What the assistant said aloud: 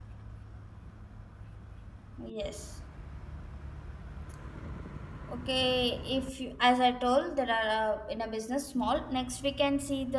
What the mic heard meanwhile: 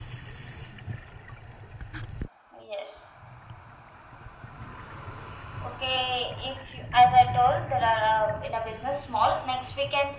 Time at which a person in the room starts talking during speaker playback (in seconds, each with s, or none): none